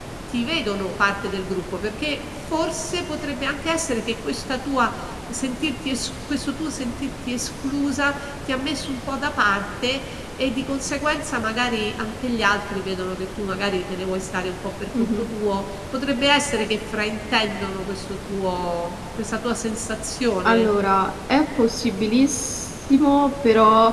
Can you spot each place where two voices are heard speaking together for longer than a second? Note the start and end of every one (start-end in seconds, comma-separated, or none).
none